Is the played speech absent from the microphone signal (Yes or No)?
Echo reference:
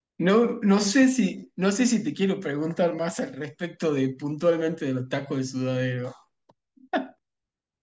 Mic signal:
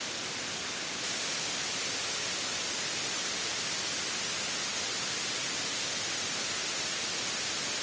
Yes